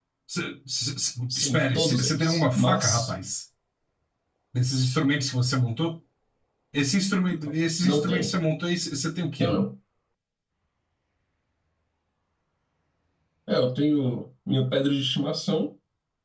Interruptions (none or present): present